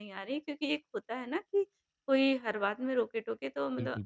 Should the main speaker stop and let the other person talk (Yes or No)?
No